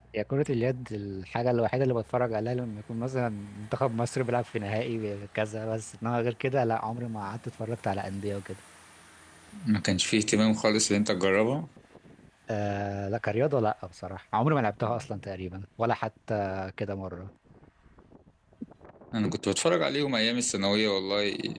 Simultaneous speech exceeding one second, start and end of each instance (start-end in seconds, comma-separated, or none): none